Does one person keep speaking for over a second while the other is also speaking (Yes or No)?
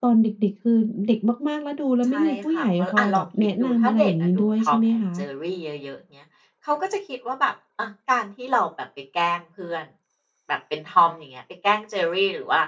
Yes